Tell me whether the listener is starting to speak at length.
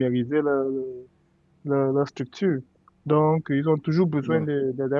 No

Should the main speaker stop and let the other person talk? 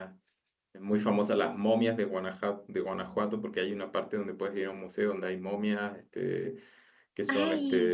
No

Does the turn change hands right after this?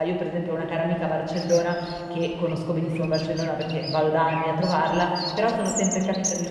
No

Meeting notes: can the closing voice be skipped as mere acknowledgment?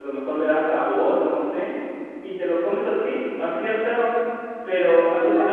Yes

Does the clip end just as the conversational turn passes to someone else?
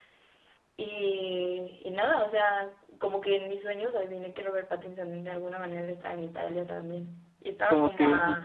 Yes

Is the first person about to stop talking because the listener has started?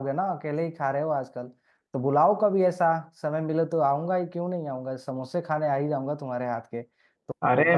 No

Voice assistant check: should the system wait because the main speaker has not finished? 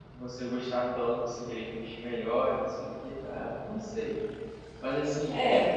Yes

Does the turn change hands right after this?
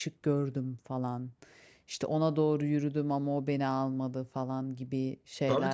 Yes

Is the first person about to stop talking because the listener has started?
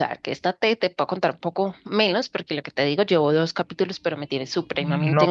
Yes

